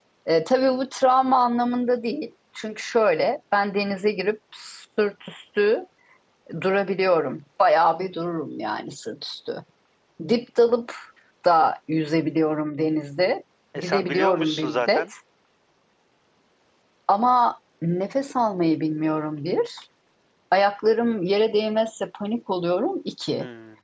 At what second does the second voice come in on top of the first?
13.8 s

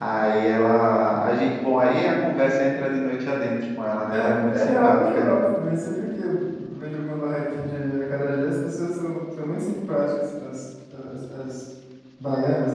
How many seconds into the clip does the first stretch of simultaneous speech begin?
4.1 s

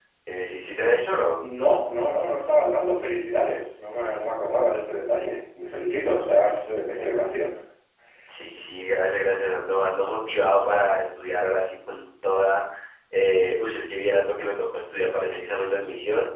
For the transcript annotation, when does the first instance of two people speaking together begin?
none

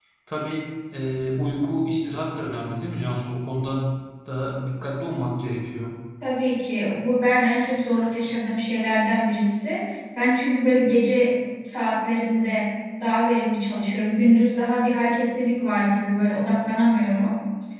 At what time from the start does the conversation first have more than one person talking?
none

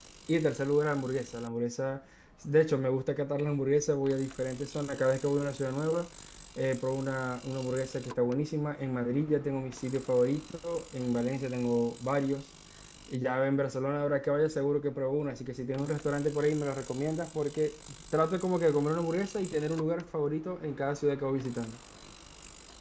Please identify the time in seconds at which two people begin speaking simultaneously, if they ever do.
none

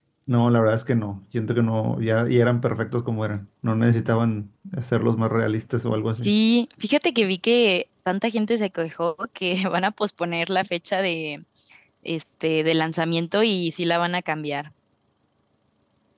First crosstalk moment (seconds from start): none

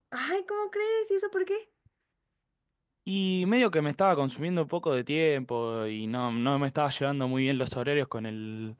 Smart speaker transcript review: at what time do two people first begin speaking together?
none

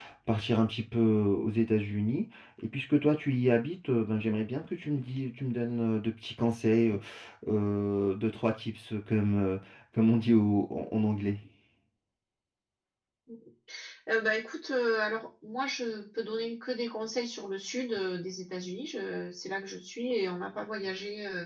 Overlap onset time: none

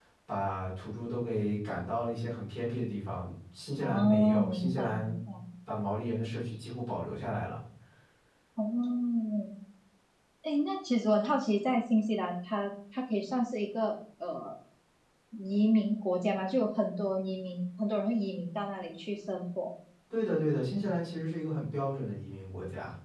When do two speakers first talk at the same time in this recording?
3.8 s

